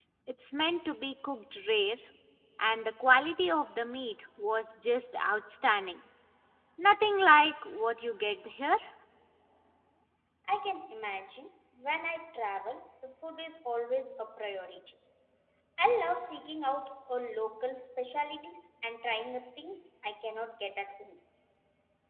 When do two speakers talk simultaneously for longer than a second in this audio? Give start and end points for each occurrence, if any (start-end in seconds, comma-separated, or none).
none